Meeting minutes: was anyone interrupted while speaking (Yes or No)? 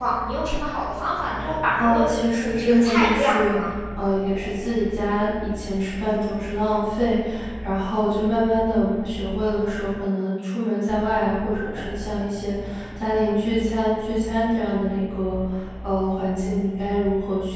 Yes